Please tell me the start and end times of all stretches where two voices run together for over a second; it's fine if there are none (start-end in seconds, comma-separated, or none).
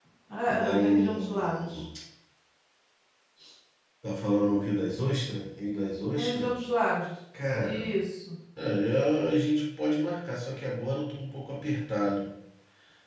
0.6-1.8